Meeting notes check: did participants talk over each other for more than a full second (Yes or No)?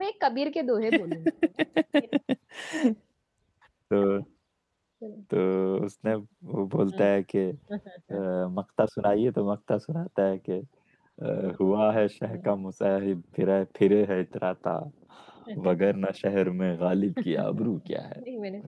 No